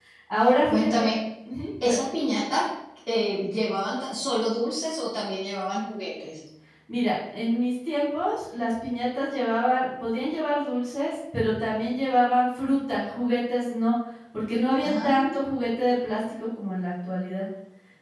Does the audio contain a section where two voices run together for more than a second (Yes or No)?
No